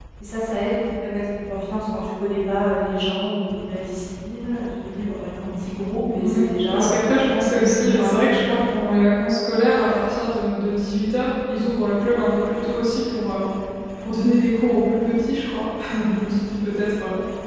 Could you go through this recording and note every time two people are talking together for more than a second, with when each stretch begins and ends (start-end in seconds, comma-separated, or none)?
6.2-8.4